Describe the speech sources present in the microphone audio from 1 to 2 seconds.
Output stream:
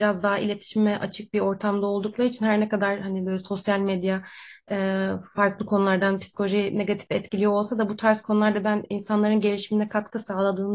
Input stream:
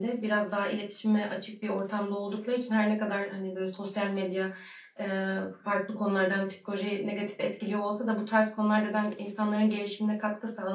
echo only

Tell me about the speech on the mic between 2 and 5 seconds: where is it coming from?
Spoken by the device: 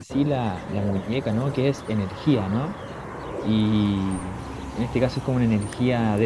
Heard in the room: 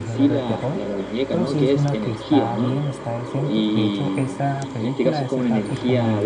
both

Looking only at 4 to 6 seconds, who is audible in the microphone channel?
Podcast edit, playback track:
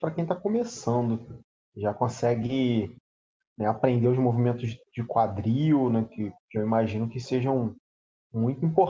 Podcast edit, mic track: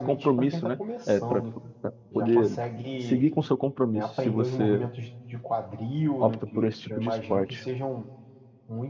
both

